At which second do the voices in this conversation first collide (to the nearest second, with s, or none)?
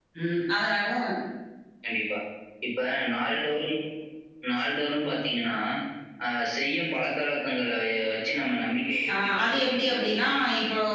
9 s